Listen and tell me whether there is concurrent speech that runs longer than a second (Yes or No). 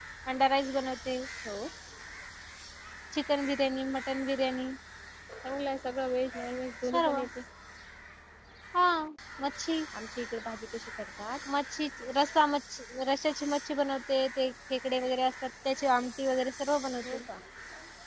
No